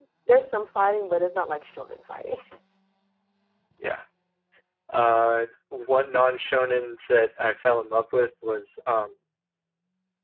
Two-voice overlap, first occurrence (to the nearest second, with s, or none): none